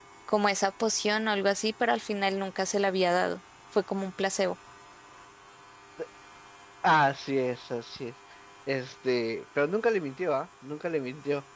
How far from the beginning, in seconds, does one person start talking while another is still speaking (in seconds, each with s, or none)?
none